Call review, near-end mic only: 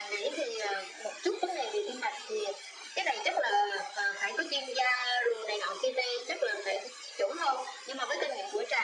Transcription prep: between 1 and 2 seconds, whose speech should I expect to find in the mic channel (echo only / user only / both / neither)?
echo only